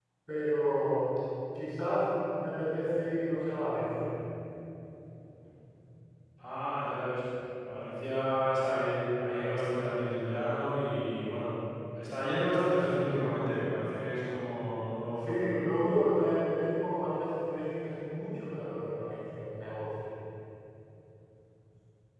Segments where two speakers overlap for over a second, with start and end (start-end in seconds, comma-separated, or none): none